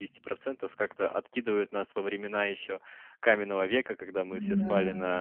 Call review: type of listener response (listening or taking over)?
listening